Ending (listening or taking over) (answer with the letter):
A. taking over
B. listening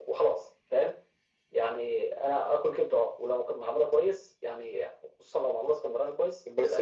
A